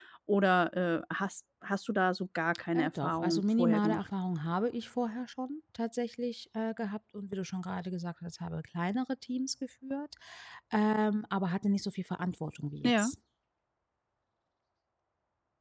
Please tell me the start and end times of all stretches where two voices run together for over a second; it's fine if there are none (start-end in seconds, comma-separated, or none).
2.7-4.1